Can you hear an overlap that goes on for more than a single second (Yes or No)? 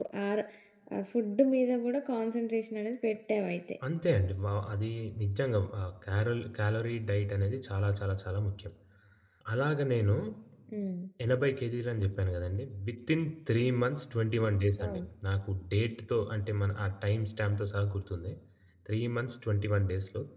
No